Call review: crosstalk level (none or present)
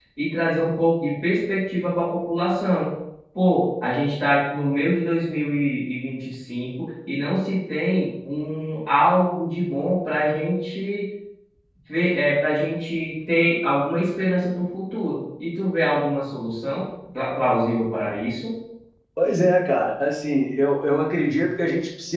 none